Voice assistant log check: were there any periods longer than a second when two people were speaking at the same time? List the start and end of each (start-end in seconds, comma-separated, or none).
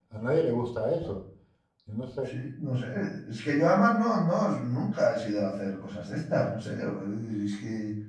none